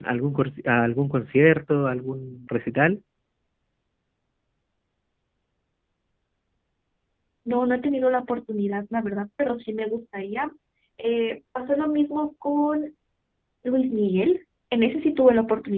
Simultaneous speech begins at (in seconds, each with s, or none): none